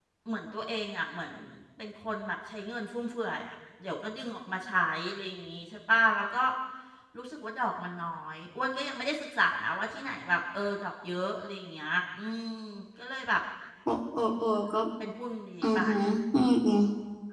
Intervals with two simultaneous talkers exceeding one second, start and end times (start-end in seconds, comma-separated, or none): none